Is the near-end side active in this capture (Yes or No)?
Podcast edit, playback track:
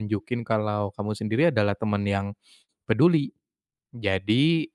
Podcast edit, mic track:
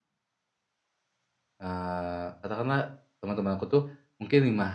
Yes